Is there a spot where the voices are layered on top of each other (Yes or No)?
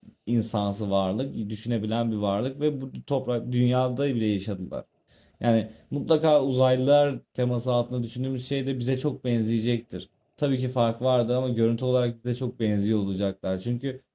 No